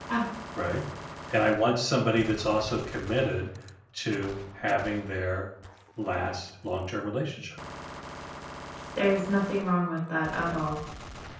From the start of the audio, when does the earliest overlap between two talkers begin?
none

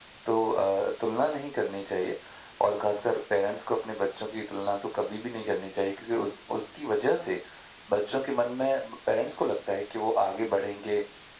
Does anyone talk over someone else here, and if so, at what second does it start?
none

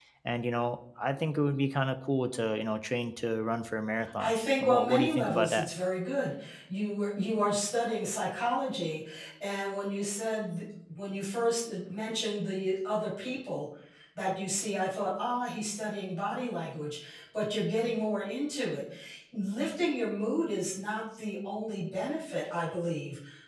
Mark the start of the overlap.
4 s

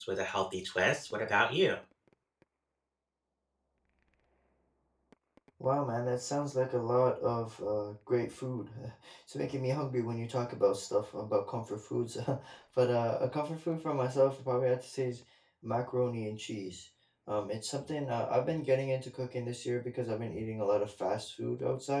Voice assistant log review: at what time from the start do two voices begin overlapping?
none

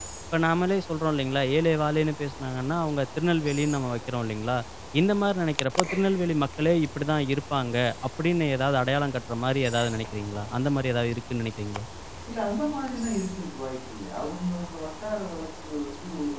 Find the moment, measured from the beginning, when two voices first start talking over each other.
none

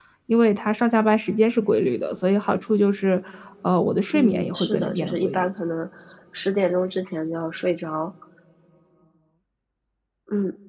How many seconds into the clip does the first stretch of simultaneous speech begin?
4 s

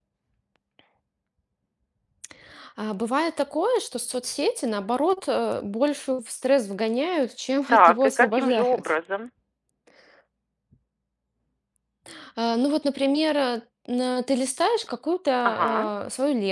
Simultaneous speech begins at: 8 s

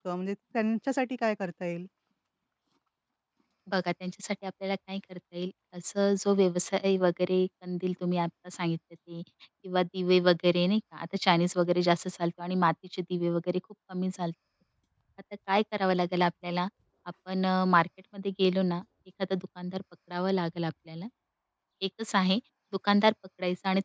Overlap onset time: none

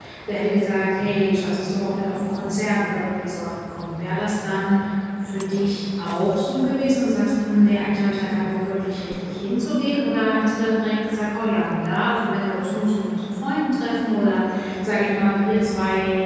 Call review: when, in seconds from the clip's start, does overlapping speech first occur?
none

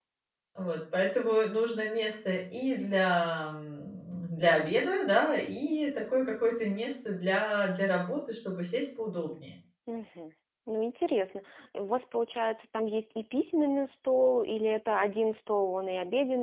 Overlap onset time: none

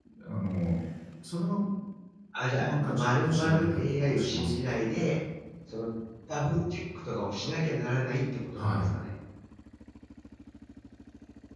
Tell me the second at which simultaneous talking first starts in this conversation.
3 s

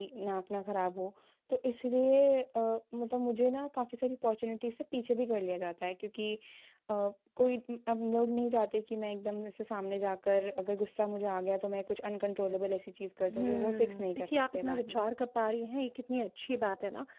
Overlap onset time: 13 s

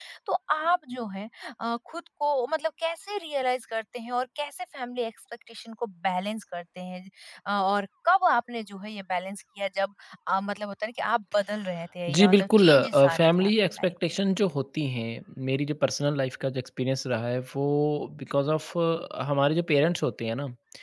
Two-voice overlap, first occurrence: 12 s

